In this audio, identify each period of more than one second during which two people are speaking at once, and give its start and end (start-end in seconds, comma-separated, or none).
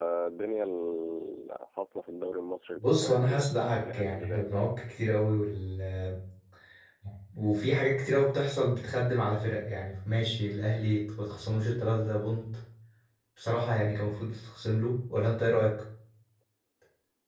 2.8-4.7